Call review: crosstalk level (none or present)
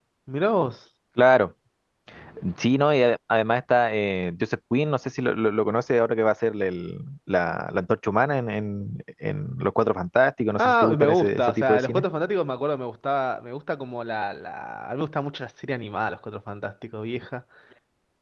present